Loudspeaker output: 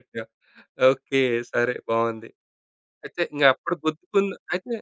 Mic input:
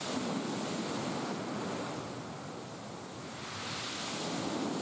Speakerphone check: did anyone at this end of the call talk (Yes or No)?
No